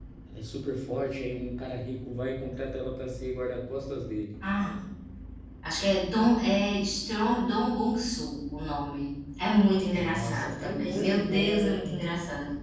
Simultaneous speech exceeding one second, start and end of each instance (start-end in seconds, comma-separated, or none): 9.9-12.0